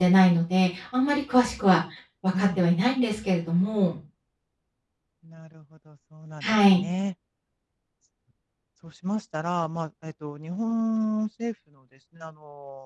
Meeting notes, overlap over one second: none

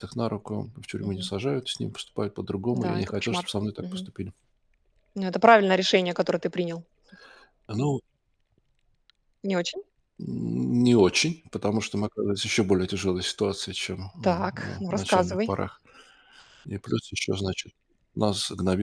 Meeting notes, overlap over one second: present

